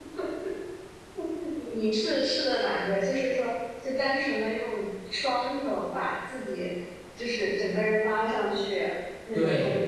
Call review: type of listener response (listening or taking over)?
taking over